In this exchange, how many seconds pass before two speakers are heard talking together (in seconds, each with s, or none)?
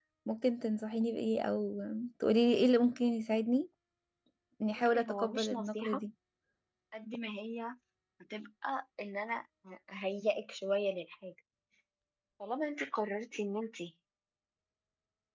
4.8 s